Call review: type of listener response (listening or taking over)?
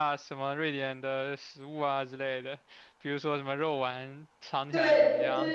taking over